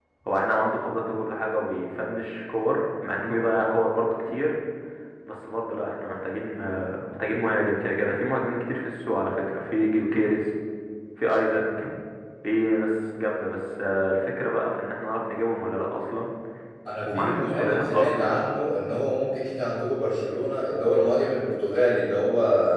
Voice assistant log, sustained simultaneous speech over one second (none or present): present